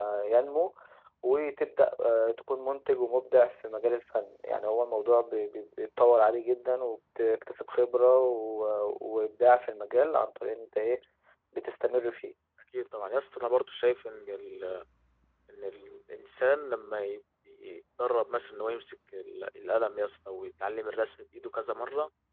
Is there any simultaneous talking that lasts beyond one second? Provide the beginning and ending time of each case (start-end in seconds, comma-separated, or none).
none